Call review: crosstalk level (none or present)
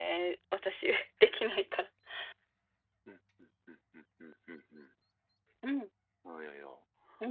none